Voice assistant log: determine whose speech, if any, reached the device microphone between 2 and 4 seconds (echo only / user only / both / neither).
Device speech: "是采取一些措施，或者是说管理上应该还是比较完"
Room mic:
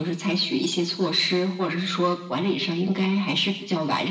echo only